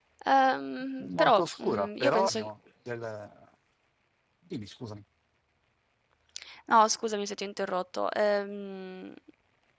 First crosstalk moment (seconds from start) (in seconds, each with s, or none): 1.1 s